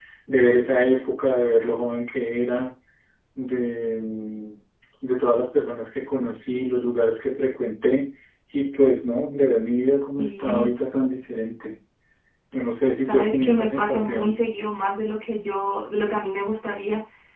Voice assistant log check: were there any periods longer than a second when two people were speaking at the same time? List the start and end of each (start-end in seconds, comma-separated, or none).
13.1-14.3